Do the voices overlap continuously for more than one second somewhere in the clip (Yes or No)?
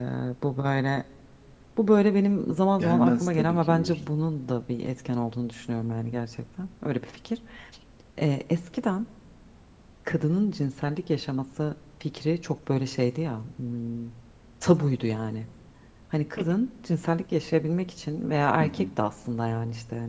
Yes